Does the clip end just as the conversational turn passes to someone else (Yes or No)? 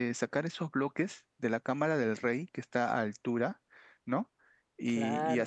No